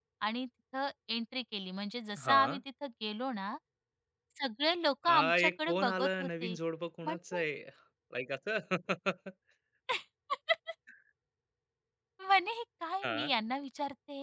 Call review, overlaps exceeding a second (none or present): present